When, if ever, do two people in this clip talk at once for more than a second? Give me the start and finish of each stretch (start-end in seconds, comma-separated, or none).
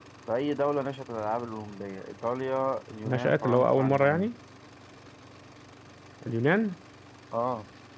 3.0-4.3